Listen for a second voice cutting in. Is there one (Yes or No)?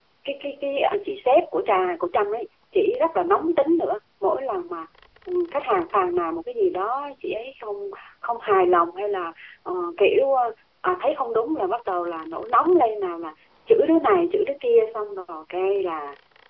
No